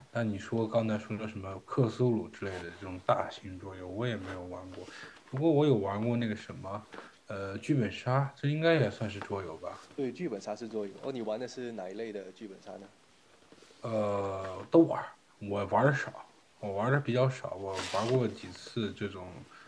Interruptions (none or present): none